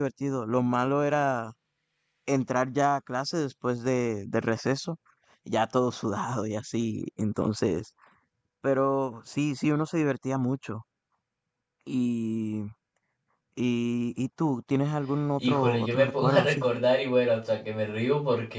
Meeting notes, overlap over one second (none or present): present